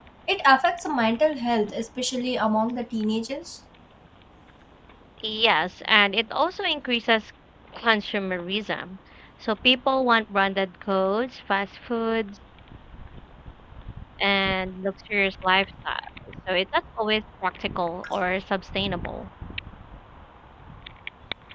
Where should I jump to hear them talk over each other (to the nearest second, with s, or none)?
none